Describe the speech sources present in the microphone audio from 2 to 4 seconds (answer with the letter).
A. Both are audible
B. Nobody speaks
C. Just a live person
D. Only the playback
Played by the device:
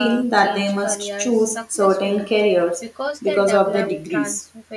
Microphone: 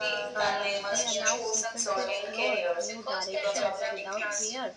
A